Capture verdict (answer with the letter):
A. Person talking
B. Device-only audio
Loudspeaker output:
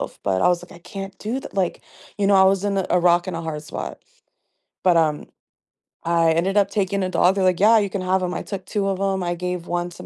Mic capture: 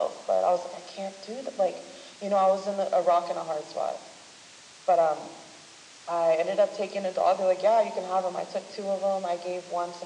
B